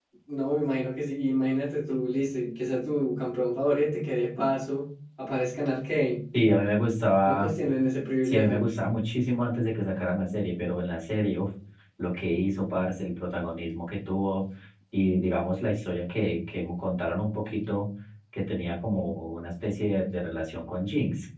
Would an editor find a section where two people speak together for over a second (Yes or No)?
No